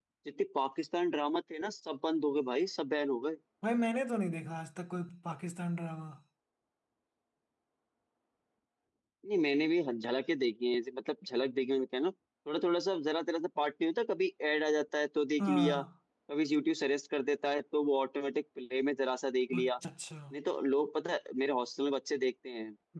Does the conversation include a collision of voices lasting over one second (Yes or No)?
No